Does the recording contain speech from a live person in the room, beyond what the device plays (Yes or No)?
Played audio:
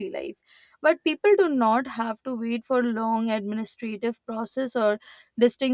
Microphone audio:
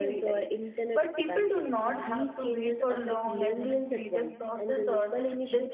Yes